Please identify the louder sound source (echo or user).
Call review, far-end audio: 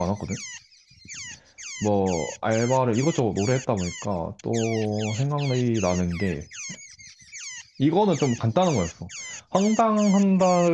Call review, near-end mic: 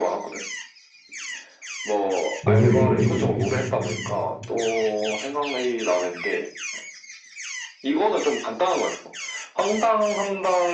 user